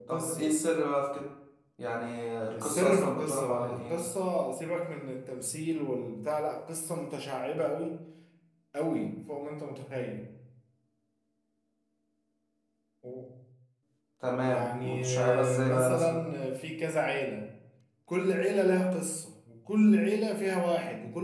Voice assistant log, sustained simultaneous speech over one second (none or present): present